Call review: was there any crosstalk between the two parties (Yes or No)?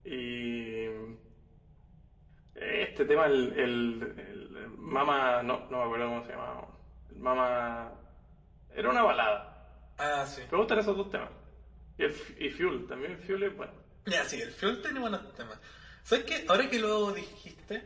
No